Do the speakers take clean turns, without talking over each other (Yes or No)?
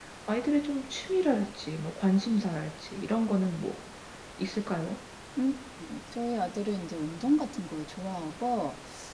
Yes